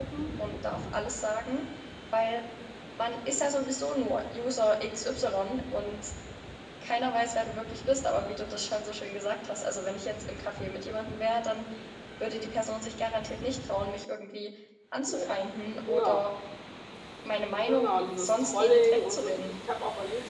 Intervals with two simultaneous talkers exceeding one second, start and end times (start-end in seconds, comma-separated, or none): 17.7-19.3